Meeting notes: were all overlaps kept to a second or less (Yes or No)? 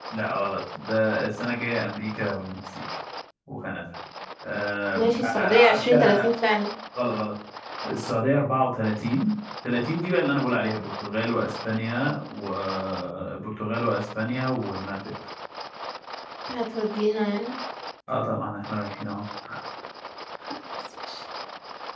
No